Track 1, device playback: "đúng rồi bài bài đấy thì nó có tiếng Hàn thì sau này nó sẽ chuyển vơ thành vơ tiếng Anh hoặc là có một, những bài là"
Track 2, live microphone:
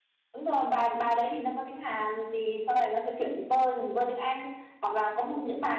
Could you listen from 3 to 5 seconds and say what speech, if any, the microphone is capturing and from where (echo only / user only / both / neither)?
echo only